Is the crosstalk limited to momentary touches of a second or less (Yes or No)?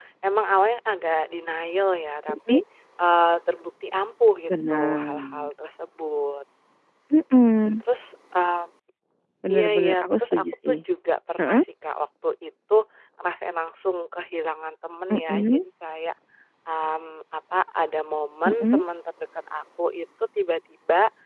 No